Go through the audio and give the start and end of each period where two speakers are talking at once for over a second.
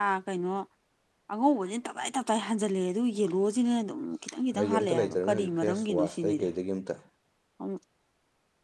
4.6-6.5

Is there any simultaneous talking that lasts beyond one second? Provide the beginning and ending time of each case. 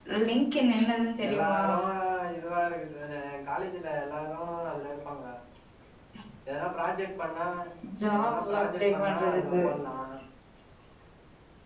8.2-9.6

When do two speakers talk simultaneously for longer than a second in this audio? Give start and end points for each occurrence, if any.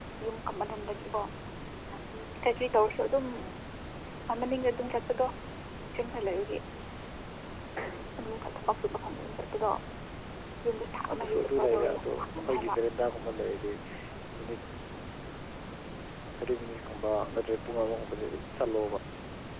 11.1-12.8

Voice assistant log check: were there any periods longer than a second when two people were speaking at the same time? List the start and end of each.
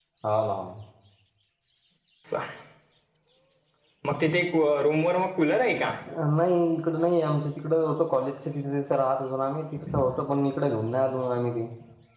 none

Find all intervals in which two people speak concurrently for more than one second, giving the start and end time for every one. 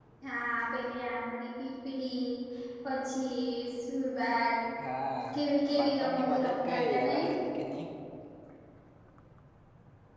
5.7-7.2

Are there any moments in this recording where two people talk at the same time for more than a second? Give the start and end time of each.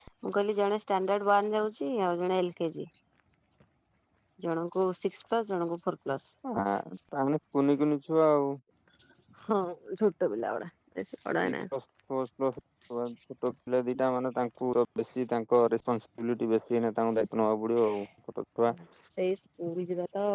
none

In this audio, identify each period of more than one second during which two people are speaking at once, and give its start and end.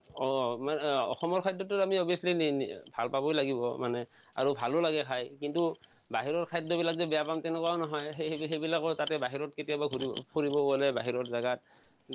none

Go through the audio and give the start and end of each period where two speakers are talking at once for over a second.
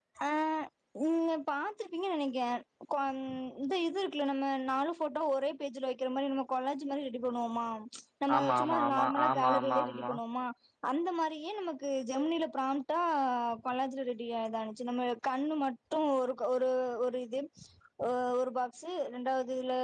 8.4-10.1

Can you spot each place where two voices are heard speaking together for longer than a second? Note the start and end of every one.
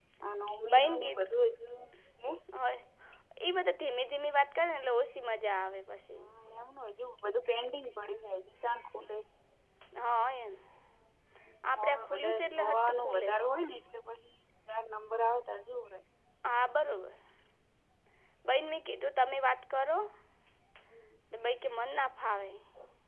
11.7-13.3

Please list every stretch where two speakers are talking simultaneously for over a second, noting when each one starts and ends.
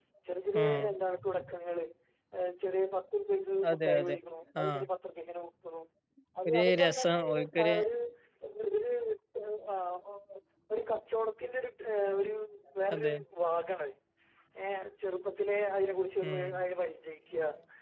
6.5-7.7

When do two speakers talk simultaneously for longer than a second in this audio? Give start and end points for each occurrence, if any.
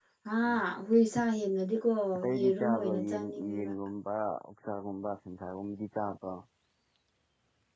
2.4-3.7

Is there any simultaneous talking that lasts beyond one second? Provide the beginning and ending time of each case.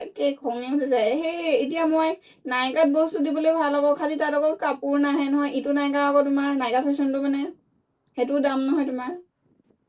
none

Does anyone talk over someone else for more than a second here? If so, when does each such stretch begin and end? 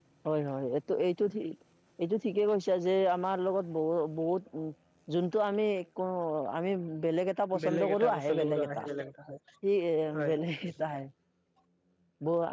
7.6-8.8

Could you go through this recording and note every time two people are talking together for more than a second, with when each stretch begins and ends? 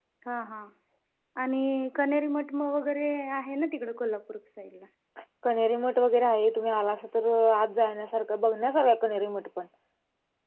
none

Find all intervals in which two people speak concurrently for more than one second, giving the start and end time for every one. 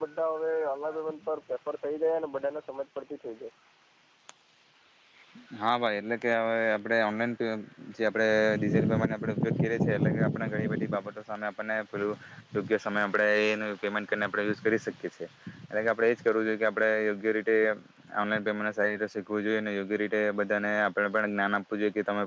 none

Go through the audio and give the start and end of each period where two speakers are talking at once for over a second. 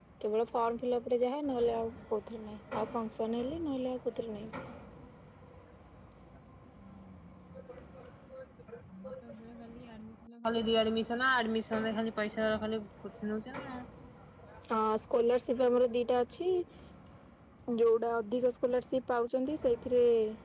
none

